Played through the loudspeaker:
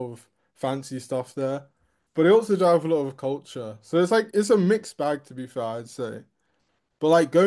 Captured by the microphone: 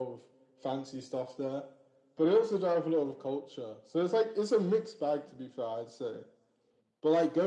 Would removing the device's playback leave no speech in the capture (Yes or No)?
Yes